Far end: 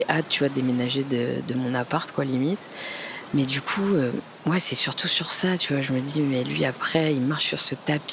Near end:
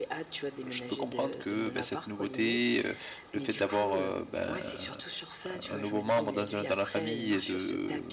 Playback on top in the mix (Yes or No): No